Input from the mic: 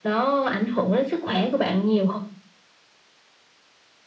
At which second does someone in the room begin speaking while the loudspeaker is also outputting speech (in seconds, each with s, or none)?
none